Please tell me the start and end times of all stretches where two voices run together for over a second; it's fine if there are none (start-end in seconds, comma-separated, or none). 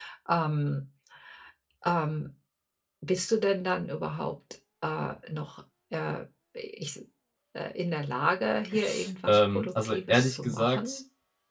9.3-11.0